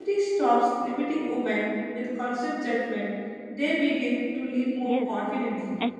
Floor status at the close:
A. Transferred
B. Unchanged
A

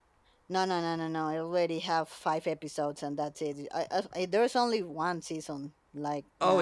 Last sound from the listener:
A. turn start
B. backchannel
A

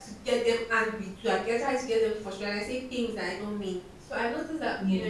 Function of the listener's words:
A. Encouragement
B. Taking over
A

